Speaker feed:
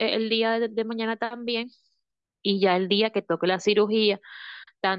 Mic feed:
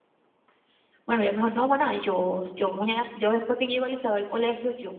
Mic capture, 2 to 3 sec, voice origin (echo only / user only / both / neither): user only